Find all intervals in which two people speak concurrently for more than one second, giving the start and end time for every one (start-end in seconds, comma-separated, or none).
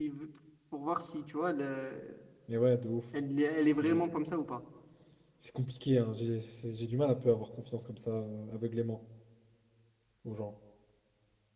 none